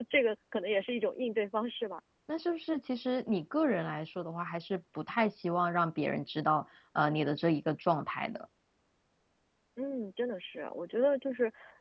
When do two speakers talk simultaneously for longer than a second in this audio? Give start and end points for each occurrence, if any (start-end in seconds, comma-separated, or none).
none